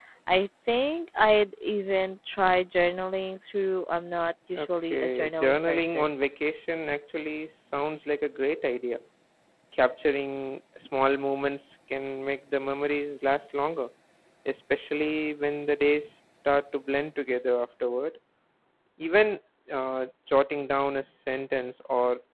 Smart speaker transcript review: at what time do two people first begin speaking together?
4.6 s

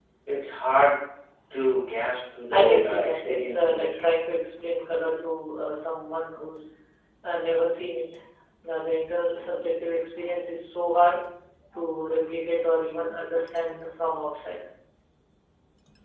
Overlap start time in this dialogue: 2.5 s

